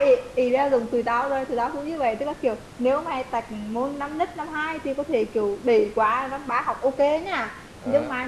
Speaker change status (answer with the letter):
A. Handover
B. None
B